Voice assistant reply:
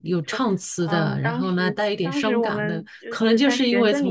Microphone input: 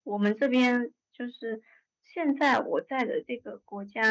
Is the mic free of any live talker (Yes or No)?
No